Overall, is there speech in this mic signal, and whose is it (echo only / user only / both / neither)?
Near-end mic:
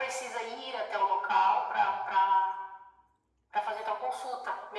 echo only